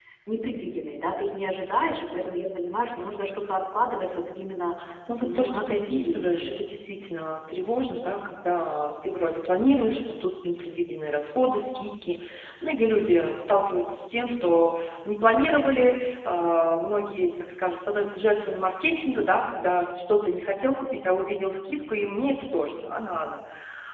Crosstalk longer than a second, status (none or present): present